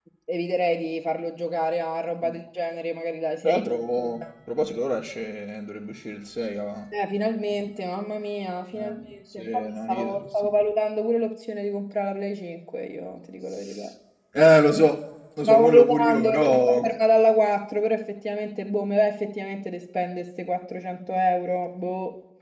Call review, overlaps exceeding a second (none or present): present